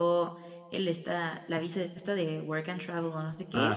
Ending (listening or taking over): listening